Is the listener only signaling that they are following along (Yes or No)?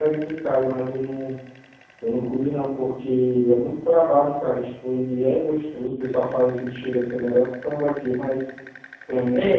No